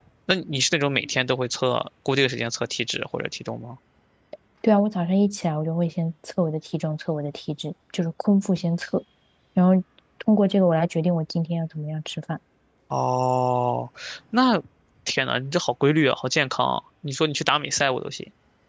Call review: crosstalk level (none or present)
none